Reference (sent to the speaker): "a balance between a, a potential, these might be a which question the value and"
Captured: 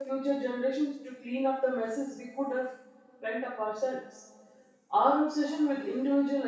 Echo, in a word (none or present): none